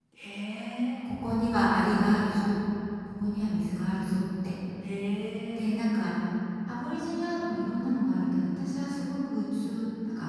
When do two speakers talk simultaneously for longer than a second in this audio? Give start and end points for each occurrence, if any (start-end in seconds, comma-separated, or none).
none